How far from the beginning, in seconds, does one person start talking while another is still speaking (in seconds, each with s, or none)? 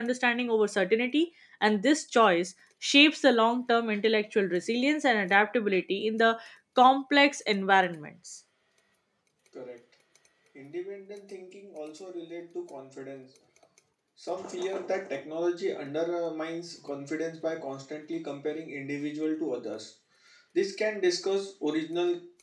none